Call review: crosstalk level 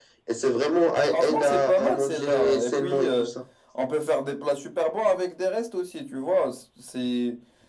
present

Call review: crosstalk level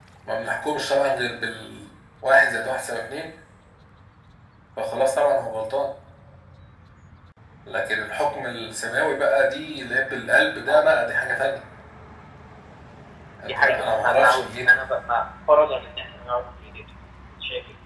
present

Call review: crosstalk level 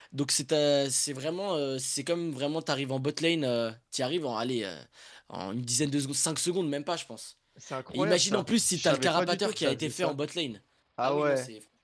present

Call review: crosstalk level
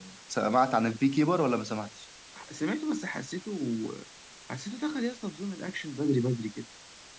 none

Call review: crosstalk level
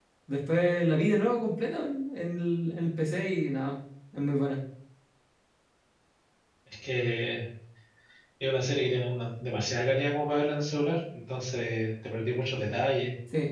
none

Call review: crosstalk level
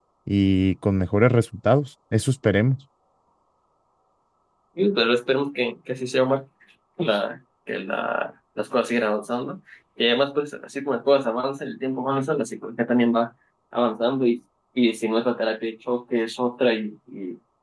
none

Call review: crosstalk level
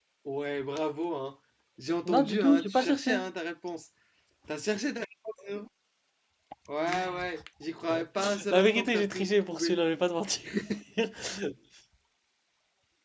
present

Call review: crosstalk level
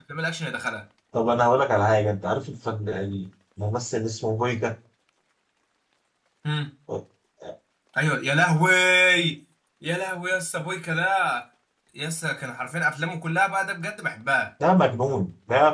none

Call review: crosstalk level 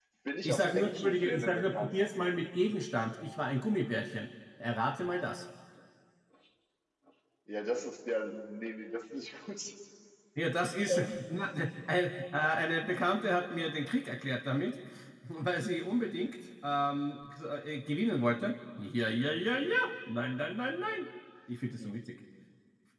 present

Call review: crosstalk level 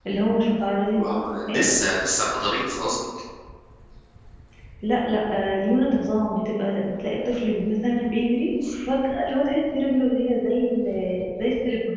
none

